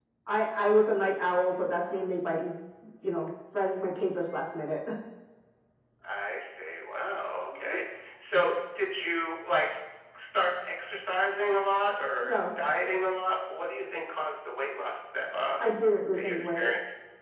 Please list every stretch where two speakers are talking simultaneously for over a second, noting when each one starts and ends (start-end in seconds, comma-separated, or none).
none